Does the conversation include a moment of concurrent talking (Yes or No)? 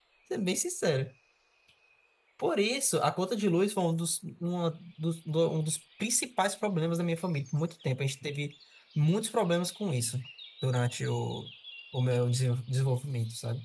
No